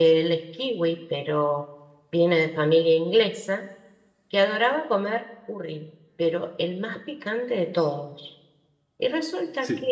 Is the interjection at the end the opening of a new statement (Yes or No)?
No